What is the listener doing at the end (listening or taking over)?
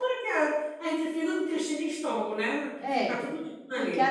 taking over